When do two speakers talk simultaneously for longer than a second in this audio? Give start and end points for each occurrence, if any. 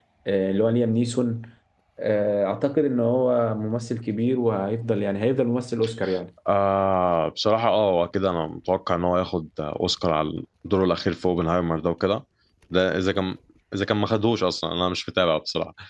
none

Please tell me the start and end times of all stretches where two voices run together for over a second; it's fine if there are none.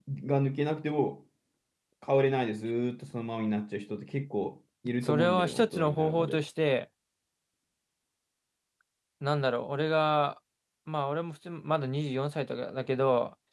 5.0-6.4

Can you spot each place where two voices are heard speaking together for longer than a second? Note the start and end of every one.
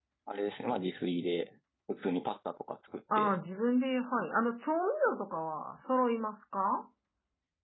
none

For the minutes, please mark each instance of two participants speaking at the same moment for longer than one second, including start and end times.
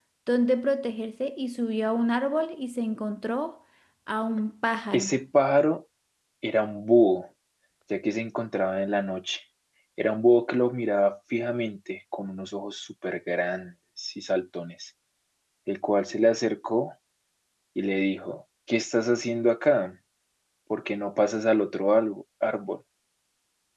none

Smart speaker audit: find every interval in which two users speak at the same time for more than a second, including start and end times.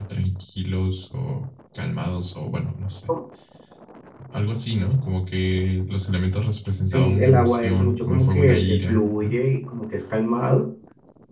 6.9-9.3

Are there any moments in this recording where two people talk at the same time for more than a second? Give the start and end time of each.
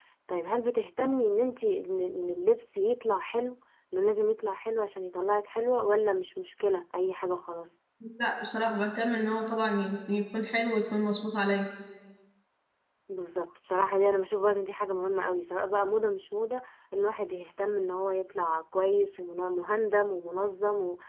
none

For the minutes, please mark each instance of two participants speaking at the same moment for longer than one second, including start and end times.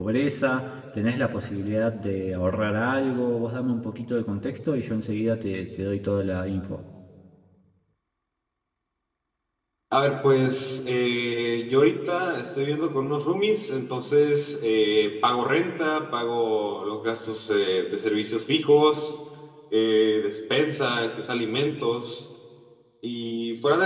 none

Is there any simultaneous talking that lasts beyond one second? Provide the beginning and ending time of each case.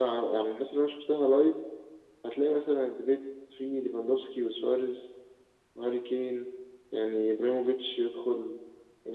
none

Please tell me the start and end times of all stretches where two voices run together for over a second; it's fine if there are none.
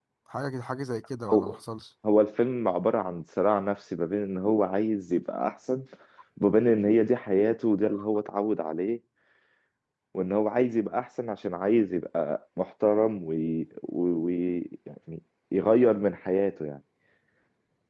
none

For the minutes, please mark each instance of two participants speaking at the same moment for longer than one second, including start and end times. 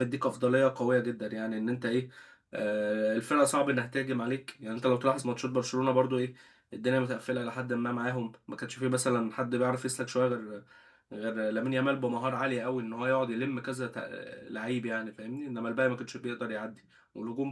none

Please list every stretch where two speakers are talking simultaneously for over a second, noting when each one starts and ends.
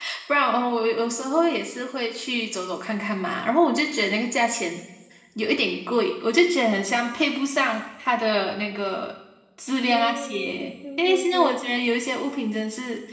9.9-11.6

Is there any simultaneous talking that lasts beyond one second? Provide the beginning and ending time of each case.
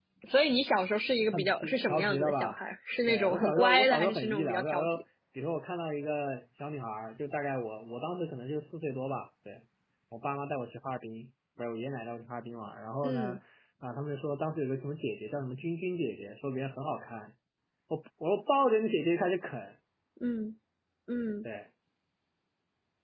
1.3-2.5, 3.1-4.9

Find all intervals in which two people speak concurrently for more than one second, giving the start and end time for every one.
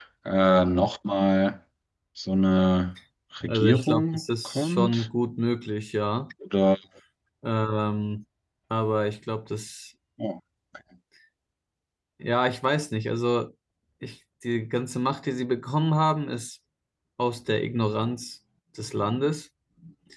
3.5-5.1

